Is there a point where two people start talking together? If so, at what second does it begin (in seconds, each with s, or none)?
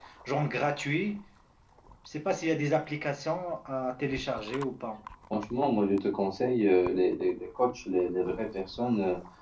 none